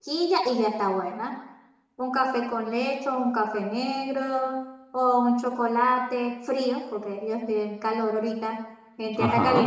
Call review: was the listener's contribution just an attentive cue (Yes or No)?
Yes